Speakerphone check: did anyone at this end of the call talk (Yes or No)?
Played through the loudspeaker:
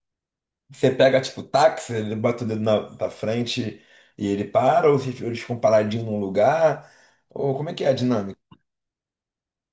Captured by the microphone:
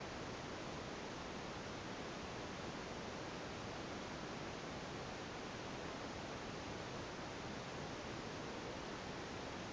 No